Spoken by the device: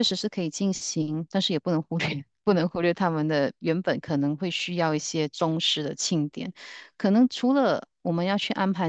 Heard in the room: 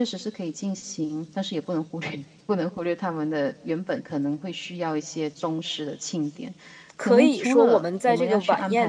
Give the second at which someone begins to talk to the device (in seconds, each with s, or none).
7.0 s